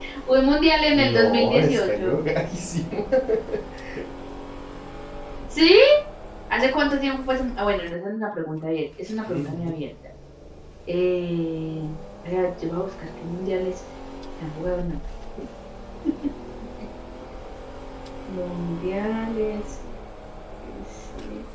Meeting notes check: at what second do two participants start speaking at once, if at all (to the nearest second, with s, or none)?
1 s